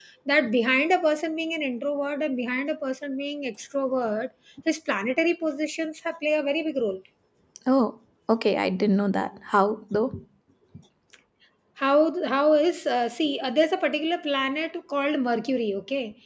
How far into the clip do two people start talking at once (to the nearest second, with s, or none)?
none